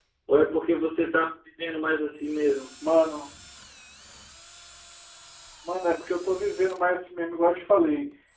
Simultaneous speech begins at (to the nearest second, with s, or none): none